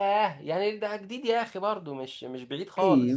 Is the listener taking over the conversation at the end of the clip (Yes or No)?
Yes